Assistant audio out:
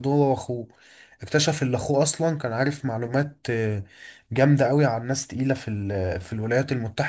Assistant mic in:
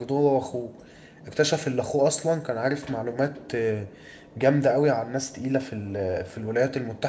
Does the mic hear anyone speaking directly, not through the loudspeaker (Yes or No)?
No